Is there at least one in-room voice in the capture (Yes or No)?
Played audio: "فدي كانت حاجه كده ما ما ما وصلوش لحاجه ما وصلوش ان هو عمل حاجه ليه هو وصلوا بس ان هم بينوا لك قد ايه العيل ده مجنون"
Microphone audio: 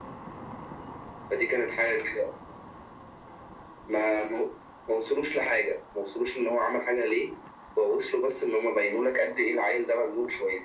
No